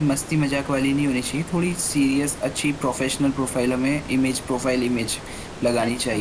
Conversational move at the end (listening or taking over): listening